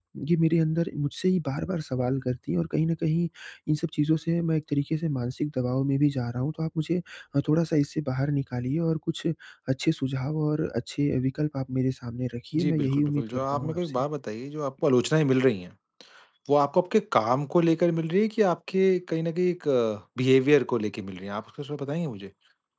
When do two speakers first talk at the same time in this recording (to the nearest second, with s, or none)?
13 s